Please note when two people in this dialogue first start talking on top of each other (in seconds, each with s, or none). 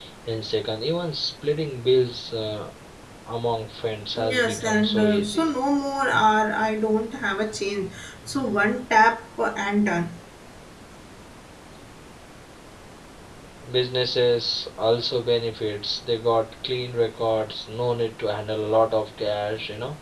4.2 s